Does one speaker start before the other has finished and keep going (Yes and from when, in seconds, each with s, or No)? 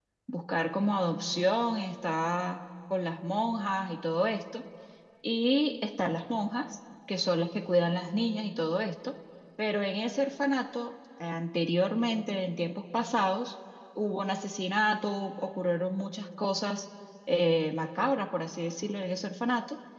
No